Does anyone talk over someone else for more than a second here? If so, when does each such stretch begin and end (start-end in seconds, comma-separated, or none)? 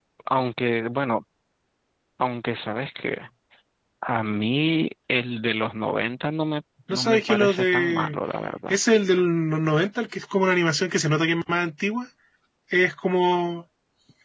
6.9-8.2